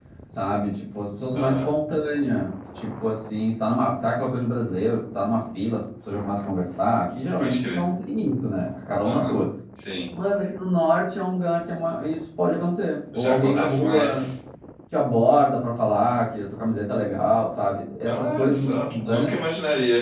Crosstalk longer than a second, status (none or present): present